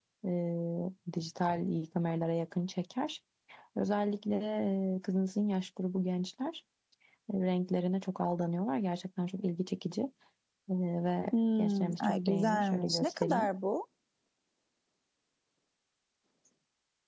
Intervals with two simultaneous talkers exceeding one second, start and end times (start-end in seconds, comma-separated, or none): 11.6-13.5